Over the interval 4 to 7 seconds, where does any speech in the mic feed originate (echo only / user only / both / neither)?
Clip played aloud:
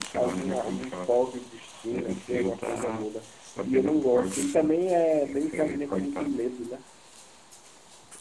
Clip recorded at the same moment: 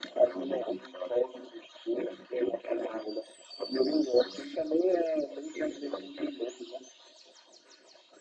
echo only